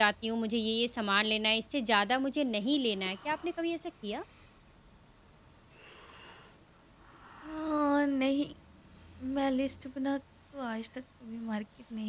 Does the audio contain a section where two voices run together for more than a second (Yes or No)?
No